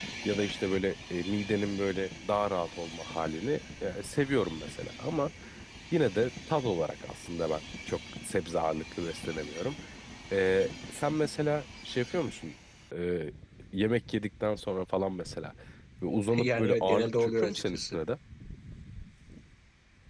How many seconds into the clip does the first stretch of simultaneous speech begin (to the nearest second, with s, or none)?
16 s